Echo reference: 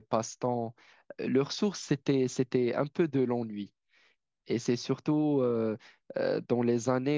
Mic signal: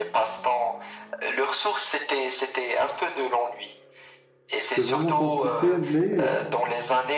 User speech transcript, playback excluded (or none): c'est vraiment compliqué, mais